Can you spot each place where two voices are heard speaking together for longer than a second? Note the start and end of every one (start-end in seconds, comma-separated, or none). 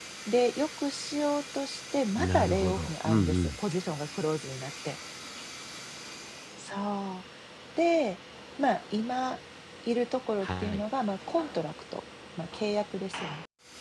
2.2-3.5